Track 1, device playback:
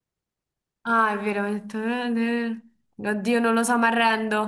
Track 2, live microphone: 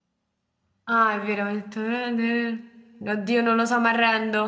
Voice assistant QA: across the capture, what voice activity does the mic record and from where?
echo only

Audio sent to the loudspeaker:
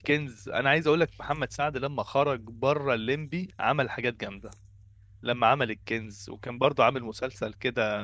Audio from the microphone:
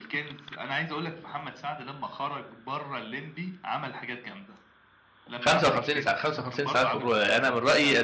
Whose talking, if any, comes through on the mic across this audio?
both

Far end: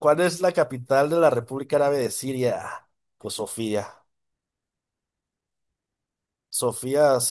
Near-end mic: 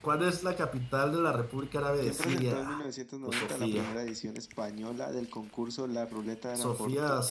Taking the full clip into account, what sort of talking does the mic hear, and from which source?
both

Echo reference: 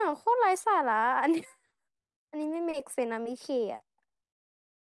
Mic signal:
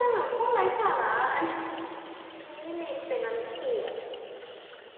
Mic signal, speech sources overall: echo only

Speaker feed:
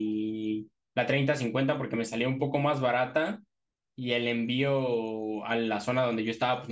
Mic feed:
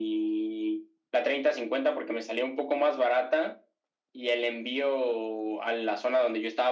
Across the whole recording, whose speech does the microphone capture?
echo only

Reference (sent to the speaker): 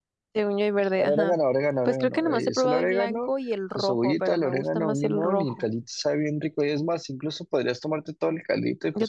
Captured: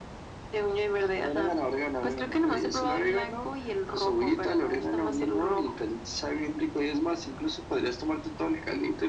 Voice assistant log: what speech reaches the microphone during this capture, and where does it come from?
echo only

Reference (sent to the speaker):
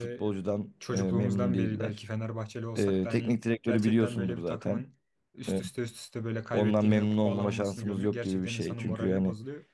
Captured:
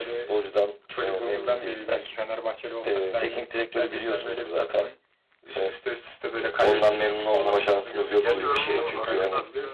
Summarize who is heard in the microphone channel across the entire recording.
both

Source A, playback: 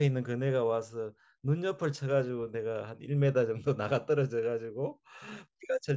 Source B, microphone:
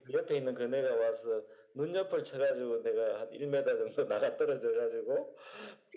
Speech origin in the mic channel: echo only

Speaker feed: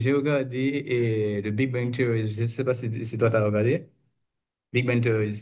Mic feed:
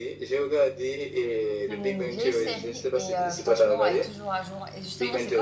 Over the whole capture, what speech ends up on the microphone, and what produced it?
both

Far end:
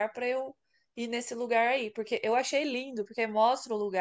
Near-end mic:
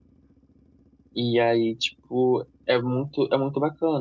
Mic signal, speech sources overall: user only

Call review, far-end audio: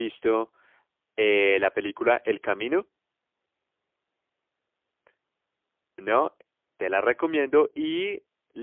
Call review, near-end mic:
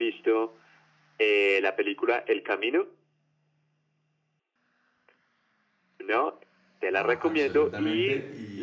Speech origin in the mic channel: both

